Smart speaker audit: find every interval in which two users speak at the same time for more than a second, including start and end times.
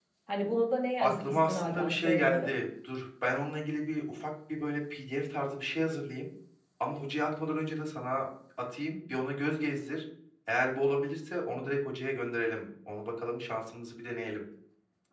1.0-2.5

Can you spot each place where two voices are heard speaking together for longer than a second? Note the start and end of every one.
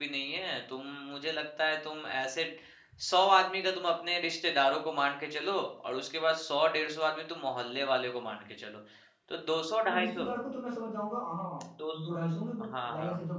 none

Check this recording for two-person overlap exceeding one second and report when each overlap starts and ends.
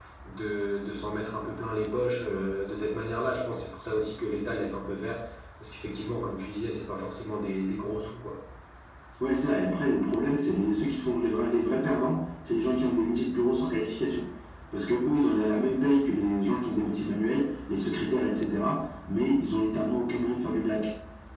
none

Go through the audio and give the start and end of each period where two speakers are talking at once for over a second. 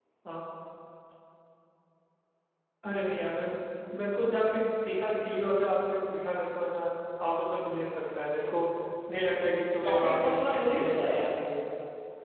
9.8-11.4

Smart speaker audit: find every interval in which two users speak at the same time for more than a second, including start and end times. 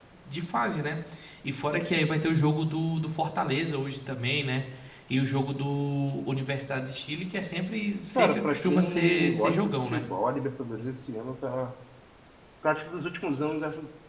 8.2-10.1

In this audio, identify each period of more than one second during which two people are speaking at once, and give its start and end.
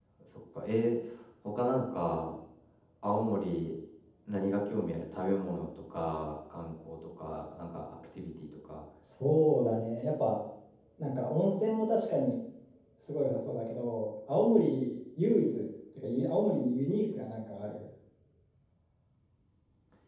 none

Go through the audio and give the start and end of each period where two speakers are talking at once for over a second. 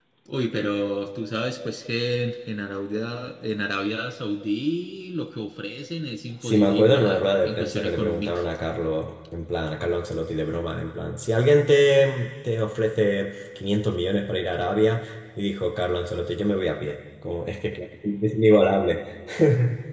6.4-8.4

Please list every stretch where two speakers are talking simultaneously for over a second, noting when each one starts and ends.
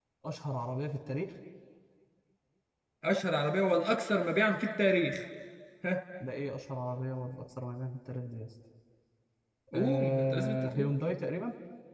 9.7-10.9

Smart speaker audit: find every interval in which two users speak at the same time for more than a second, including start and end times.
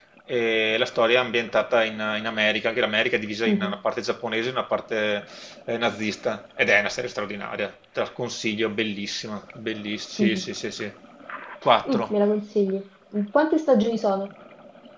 none

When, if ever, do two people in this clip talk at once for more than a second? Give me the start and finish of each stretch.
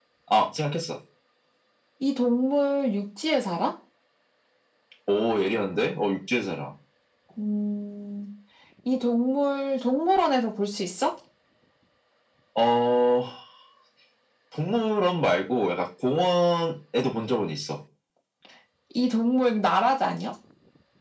none

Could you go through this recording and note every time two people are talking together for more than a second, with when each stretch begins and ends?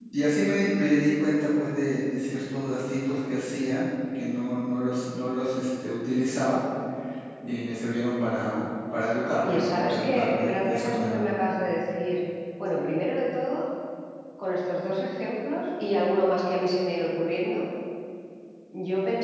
9.3-11.2

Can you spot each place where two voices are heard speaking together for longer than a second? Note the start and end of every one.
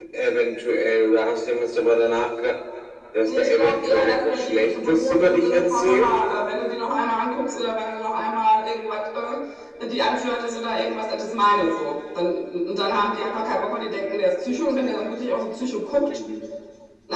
3.3-6.1

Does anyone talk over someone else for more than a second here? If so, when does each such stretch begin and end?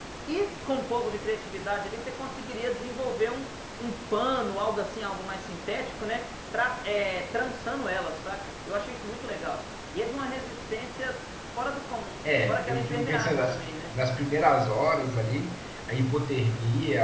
12.5-13.7

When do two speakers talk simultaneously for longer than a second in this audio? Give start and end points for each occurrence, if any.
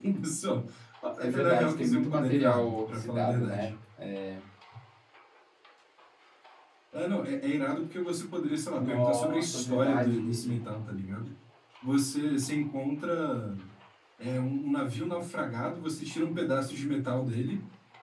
1.2-3.7, 8.8-10.7

